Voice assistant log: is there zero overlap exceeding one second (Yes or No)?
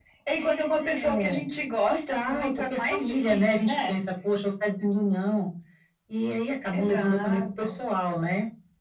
No